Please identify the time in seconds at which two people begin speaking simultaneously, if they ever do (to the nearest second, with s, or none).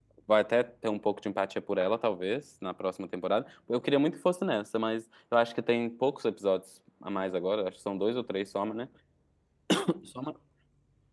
none